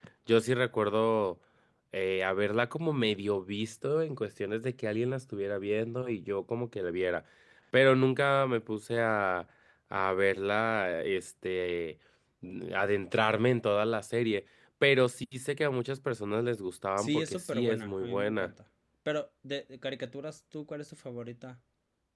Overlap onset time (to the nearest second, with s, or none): 17 s